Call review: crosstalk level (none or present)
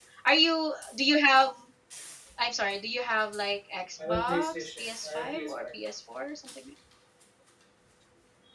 present